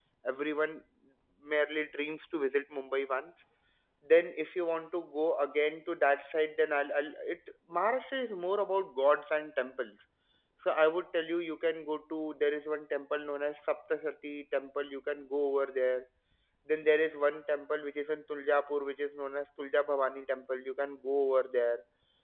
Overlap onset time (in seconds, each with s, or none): none